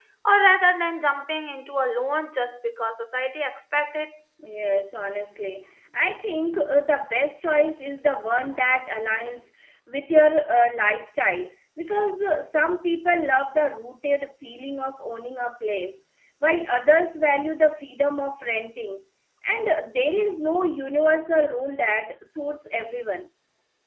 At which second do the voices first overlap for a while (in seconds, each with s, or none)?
none